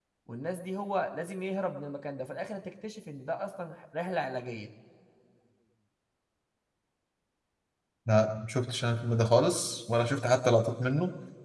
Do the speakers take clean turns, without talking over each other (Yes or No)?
Yes